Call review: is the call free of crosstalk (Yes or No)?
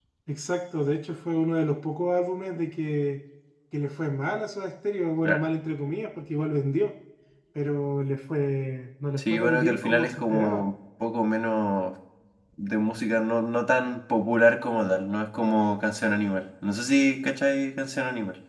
No